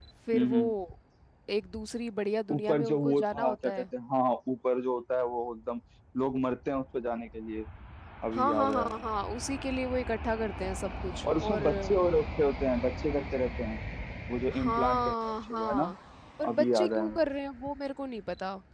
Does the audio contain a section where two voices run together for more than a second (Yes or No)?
Yes